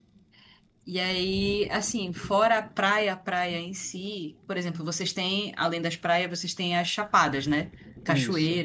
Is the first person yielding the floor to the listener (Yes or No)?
No